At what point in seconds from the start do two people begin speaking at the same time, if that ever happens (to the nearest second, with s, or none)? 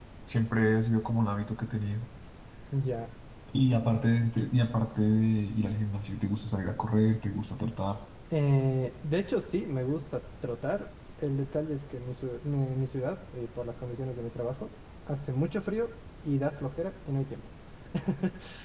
none